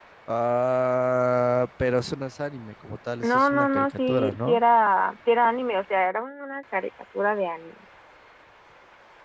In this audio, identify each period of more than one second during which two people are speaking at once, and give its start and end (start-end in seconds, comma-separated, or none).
3.2-4.6